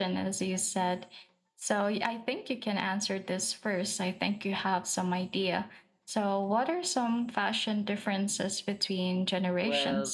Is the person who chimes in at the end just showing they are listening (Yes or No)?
No